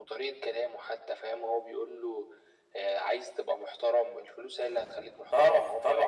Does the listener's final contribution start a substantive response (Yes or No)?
Yes